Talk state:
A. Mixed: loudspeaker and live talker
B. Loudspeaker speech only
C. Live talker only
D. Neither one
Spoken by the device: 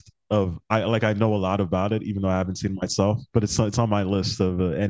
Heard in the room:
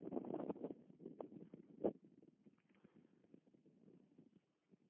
D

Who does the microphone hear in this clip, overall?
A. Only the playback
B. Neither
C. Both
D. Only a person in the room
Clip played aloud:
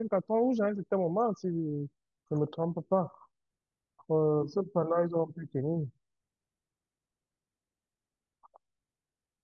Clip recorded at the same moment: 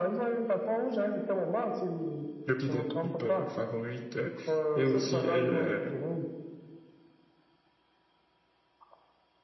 C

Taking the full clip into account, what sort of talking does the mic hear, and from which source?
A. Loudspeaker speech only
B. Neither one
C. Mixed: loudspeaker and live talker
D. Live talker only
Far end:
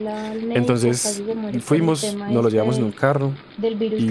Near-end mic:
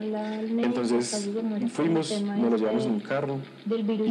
A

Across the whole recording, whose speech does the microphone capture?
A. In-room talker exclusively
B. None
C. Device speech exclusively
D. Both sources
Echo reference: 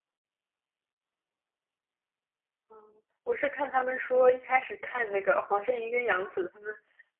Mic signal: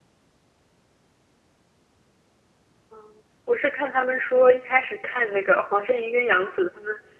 C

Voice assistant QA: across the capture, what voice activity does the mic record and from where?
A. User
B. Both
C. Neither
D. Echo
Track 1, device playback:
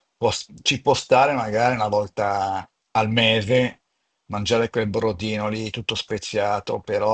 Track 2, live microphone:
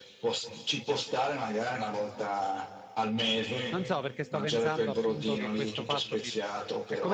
B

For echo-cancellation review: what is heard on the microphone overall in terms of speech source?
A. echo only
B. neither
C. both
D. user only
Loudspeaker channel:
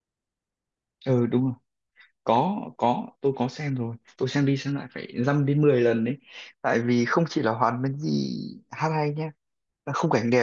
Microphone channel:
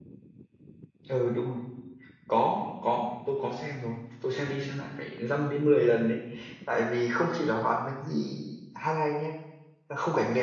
A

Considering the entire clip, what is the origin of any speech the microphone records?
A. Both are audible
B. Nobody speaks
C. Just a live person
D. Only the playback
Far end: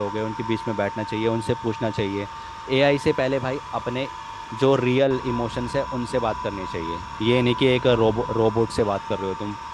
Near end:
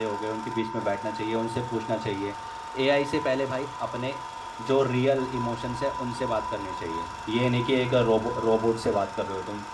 D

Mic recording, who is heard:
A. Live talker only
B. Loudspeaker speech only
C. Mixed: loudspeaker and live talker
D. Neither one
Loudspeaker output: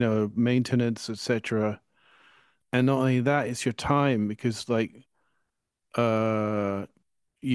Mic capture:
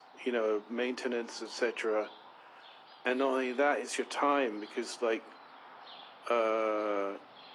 B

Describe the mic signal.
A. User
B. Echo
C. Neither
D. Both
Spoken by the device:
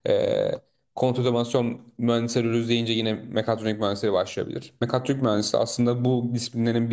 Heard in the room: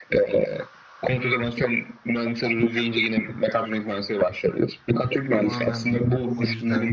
D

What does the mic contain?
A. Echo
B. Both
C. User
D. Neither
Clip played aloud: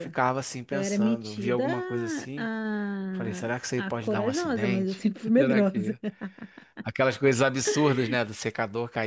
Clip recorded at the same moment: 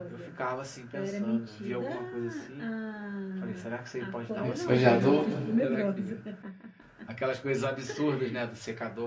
B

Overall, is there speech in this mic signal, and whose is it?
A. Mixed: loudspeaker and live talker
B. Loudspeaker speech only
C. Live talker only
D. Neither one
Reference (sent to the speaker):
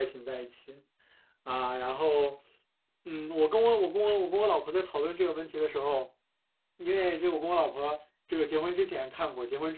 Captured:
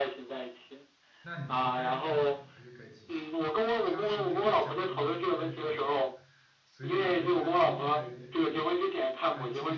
A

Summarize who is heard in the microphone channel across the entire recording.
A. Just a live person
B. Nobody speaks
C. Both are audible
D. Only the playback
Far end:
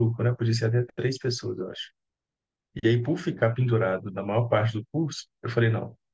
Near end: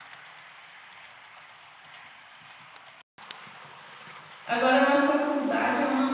A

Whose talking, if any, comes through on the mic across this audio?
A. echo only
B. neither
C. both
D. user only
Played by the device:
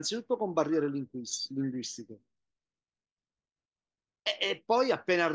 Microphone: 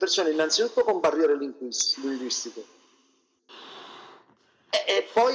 A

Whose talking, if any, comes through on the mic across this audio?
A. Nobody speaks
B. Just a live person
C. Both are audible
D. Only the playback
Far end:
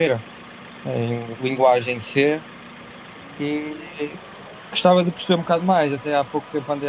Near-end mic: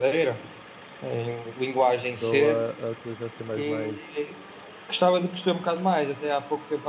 C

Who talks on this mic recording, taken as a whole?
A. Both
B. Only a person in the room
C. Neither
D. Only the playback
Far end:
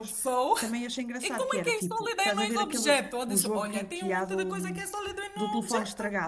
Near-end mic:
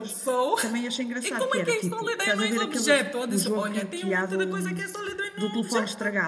D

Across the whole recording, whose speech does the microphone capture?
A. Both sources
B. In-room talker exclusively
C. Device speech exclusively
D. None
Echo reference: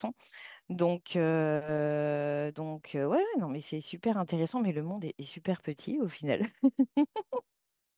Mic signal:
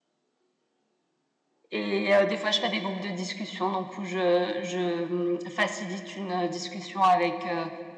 B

